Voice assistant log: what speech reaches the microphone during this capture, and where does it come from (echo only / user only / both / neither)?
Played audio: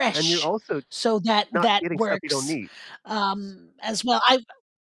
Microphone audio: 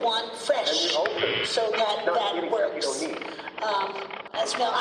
echo only